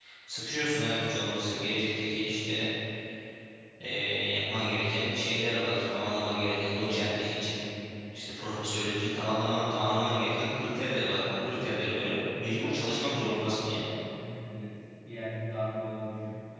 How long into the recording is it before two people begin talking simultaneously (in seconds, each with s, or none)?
12.6 s